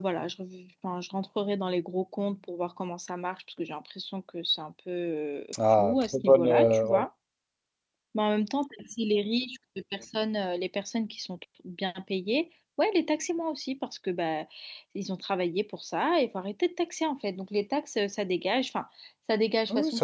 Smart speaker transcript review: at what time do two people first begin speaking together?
5.7 s

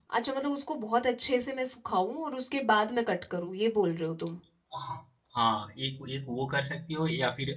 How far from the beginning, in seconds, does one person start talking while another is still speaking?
none

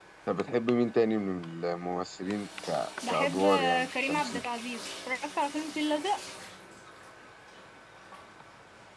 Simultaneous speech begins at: 3.0 s

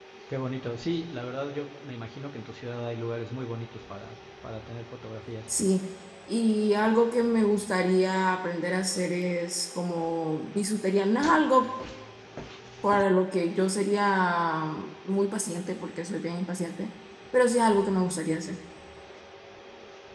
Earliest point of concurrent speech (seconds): none

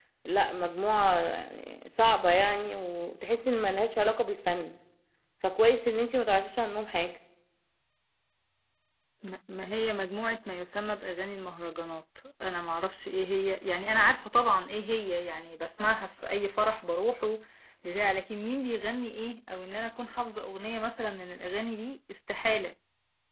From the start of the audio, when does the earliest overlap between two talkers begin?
none

